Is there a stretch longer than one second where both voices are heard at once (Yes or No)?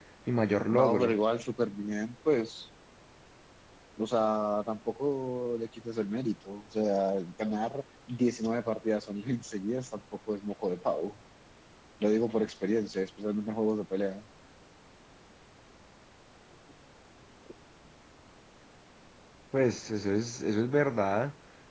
No